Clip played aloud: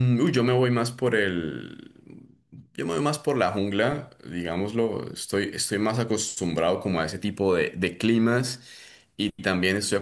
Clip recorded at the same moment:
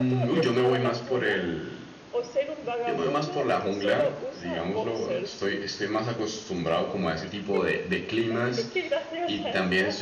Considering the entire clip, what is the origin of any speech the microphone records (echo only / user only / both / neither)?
both